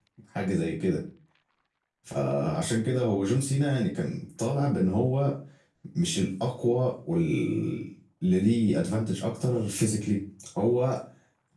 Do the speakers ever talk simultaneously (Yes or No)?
No